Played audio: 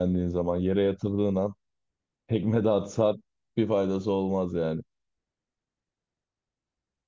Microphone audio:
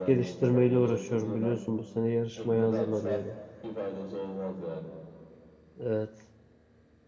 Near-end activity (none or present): present